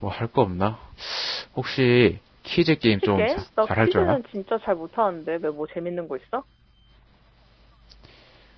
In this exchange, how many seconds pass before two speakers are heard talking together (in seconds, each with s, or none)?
2.9 s